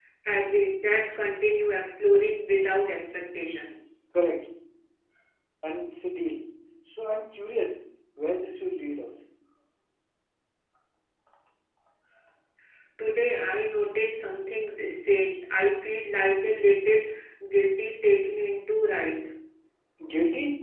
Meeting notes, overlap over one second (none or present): none